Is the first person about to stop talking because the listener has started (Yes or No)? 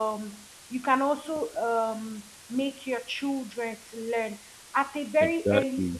No